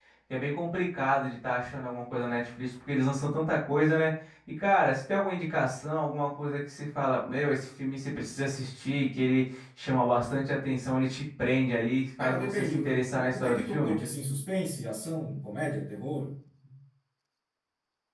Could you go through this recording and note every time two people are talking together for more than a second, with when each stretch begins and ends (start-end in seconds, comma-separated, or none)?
12.2-14.0